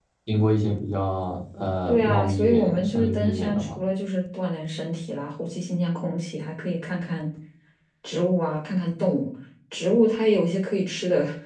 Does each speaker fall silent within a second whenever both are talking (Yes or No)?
No